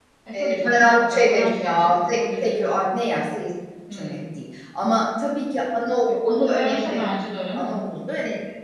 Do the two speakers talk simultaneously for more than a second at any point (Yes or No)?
Yes